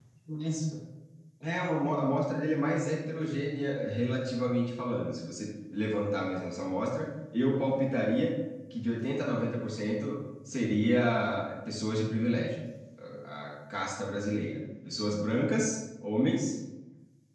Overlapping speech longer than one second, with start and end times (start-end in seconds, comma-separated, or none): none